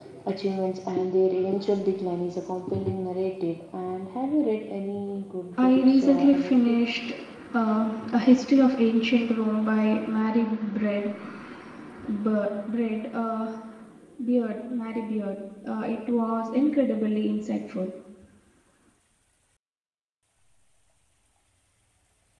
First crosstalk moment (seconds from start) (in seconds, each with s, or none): 5.6 s